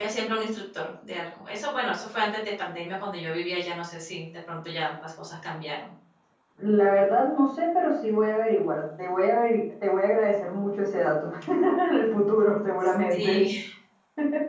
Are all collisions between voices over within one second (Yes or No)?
Yes